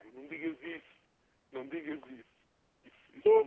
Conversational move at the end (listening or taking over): listening